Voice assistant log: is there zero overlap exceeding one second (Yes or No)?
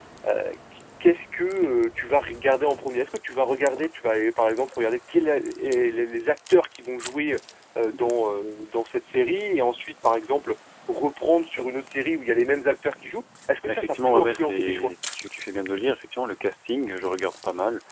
No